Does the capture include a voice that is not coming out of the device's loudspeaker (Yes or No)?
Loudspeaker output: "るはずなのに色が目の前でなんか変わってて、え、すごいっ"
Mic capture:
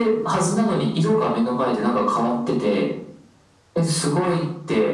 No